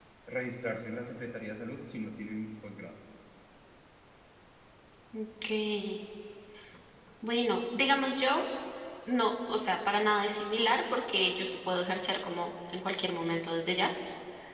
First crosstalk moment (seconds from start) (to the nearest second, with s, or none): none